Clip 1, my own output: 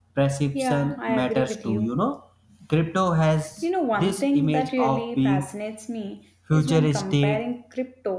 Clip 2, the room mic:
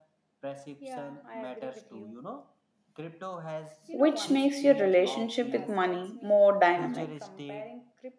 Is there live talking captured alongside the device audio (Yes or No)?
Yes